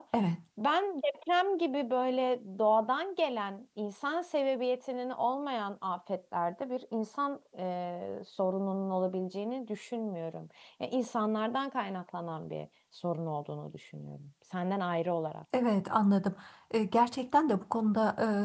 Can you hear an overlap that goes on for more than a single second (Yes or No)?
No